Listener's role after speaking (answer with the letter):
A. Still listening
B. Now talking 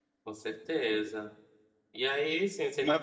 A